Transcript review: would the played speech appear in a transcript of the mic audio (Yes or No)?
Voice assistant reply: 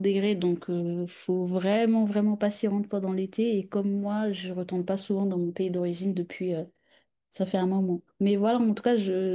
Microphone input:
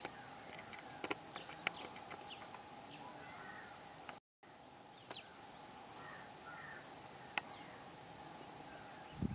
No